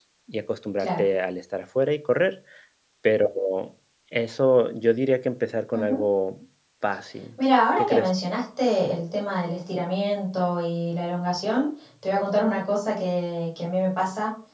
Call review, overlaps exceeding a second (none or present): none